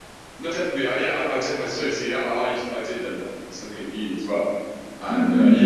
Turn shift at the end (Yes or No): No